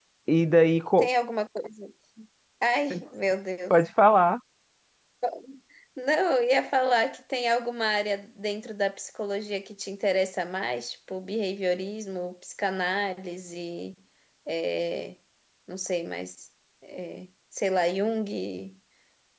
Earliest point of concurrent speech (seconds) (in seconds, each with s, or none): none